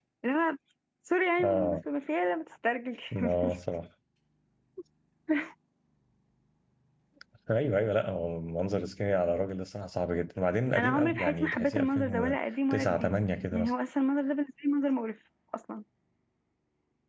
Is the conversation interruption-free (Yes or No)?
No